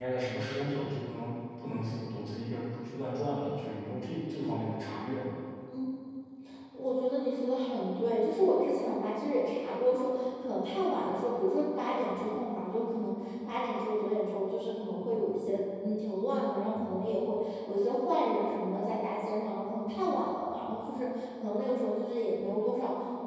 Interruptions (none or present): none